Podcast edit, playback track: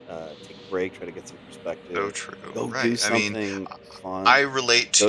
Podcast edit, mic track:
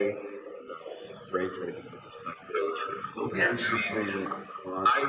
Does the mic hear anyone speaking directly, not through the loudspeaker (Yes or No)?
Yes